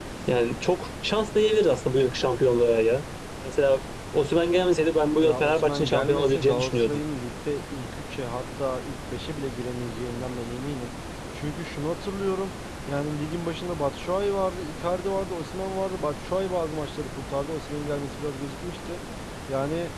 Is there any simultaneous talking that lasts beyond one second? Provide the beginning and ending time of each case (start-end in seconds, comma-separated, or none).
5.2-7.0